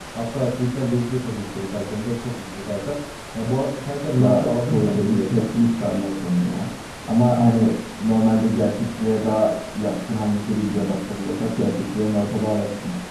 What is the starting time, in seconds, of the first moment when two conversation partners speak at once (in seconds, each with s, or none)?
4.2 s